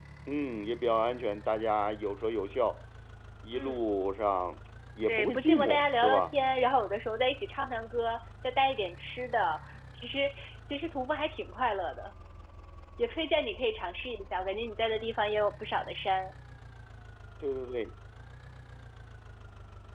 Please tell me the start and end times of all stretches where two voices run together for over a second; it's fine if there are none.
5.1-6.3

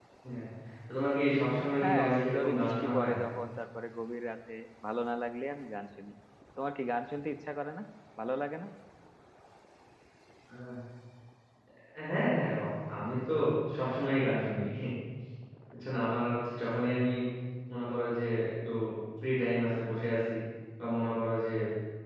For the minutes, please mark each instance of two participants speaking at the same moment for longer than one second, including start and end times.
1.8-3.1

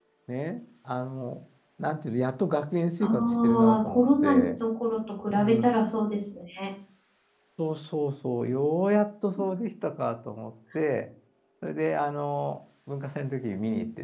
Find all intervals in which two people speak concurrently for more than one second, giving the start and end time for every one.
3.0-4.5

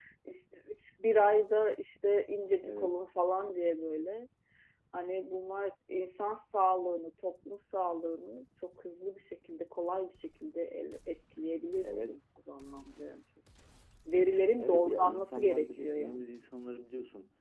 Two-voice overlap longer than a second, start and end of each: 14.6-16.3

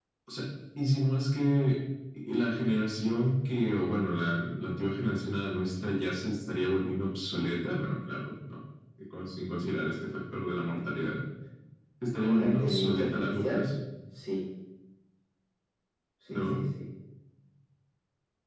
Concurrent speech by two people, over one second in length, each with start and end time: 12.2-13.7

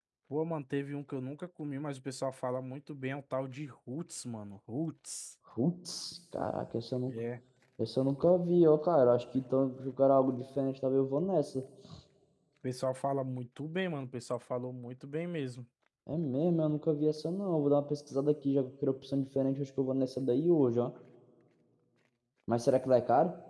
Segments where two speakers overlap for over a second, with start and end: none

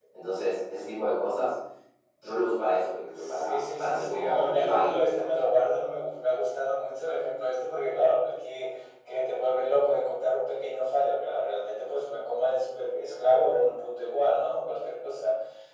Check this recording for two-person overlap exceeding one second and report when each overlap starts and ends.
3.2-5.3

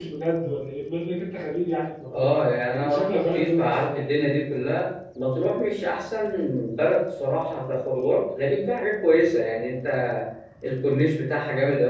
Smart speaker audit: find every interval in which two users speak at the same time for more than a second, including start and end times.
2.7-4.3

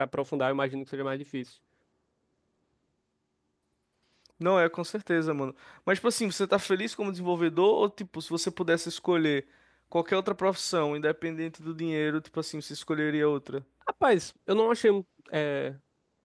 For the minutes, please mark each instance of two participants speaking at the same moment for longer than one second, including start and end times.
none

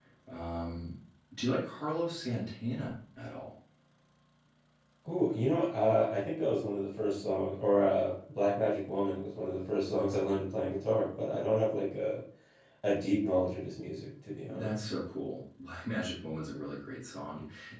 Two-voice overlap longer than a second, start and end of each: none

